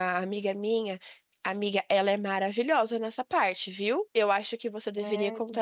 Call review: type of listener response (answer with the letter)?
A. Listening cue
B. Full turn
A